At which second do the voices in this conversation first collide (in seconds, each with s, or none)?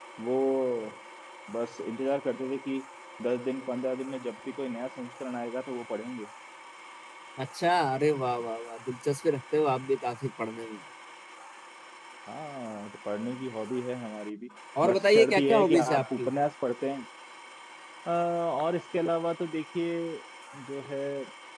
14.8 s